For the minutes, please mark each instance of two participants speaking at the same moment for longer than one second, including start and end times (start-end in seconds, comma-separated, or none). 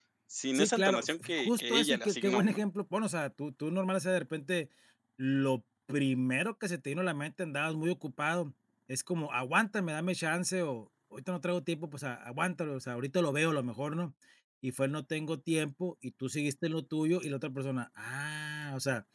0.5-2.6